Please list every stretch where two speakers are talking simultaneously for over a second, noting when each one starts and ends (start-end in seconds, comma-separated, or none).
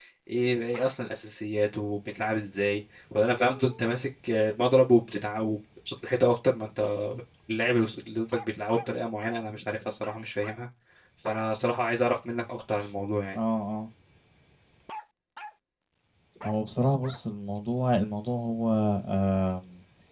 none